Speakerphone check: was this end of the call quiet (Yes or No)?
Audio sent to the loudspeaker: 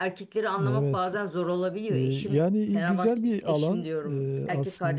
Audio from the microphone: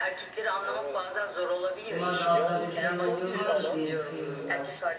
No